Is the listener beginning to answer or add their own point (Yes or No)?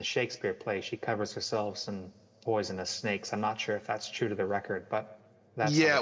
Yes